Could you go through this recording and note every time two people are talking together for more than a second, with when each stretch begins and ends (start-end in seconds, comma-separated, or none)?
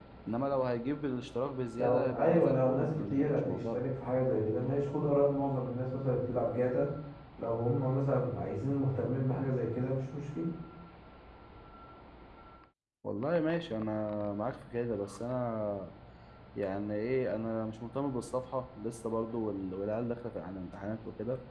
1.8-3.8